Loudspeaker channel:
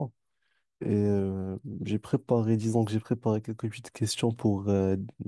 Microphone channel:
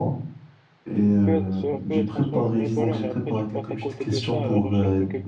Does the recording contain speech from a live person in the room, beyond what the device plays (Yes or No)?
Yes